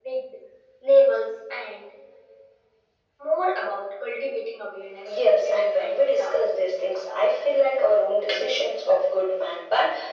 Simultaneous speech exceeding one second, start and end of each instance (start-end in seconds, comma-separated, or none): 5.0-6.3